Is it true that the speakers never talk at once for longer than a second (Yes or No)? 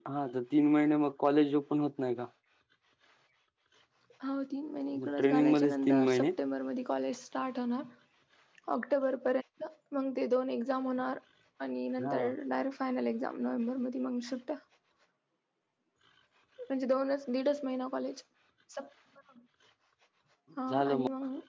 No